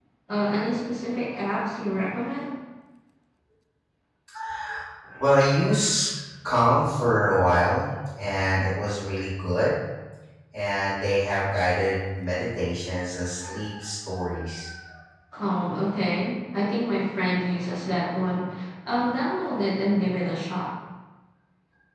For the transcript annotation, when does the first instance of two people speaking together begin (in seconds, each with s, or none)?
none